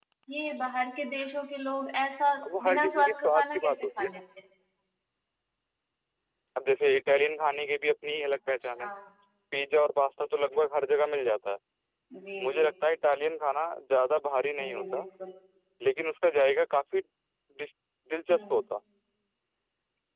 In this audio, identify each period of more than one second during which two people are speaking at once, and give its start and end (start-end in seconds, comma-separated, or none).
2.6-4.2